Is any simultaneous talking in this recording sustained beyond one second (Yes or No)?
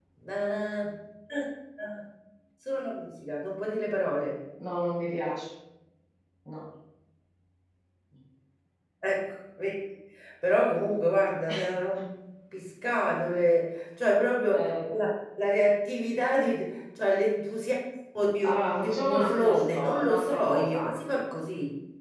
Yes